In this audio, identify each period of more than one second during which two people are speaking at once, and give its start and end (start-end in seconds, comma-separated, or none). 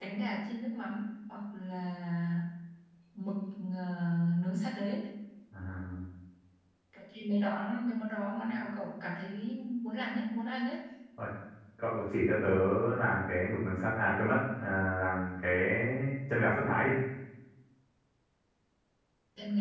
none